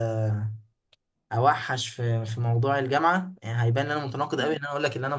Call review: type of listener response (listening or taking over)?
listening